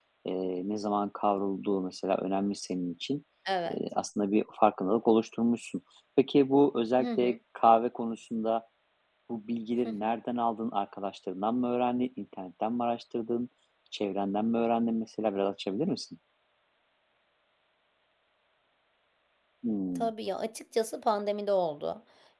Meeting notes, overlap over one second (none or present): none